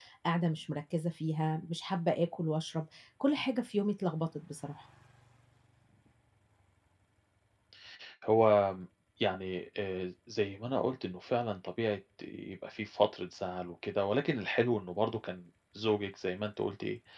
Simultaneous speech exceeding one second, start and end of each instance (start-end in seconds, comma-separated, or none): none